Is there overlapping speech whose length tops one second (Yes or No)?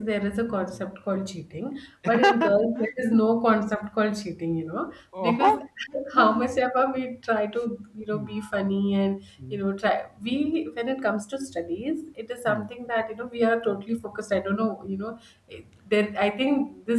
Yes